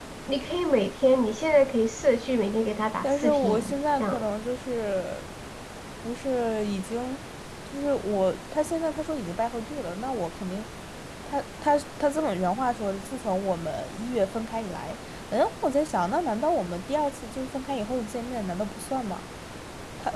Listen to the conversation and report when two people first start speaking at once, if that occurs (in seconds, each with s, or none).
3.0 s